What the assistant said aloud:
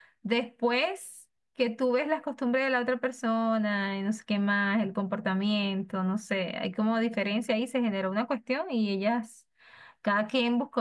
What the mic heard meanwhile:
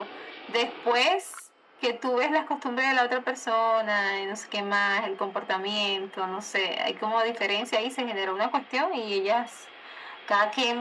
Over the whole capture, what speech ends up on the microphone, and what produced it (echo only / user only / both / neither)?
echo only